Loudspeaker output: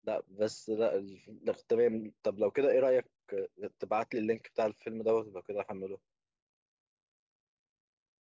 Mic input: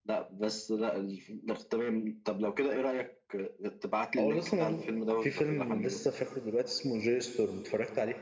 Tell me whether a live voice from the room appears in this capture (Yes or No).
Yes